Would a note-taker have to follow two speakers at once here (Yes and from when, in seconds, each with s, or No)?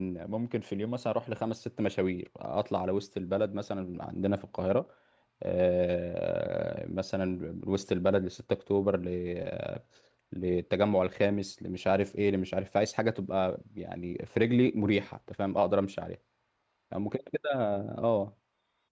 No